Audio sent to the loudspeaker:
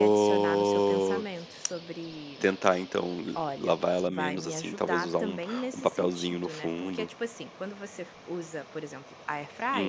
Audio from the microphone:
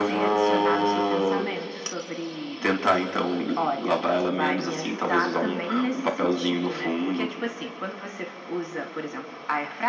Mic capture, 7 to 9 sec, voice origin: echo only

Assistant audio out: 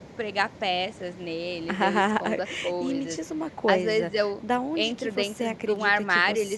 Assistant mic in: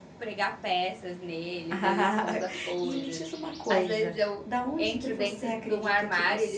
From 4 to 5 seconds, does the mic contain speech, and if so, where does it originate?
echo only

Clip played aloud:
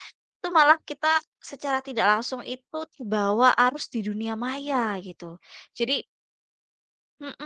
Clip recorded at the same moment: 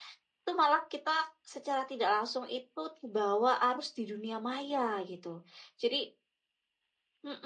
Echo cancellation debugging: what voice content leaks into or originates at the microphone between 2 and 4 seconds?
echo only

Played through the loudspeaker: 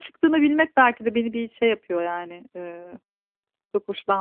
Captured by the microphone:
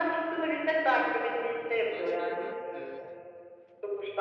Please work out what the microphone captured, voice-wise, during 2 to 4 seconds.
both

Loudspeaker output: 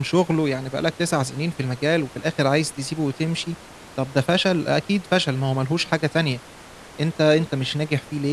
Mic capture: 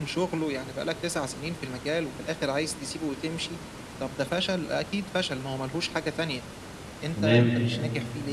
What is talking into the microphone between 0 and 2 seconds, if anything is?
echo only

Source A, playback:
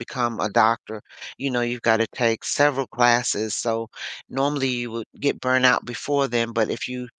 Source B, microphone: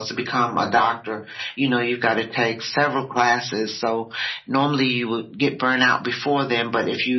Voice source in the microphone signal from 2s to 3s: echo only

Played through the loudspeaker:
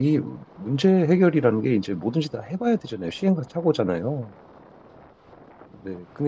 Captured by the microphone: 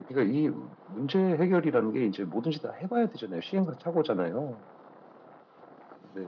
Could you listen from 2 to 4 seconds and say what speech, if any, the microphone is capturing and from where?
echo only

